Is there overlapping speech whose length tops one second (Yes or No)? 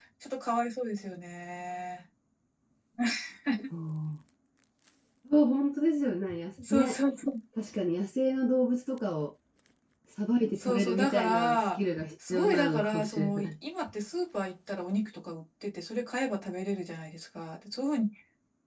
Yes